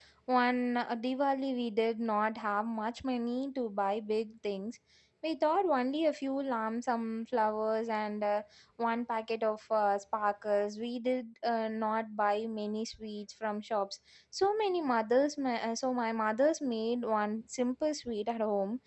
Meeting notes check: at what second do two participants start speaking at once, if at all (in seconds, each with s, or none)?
none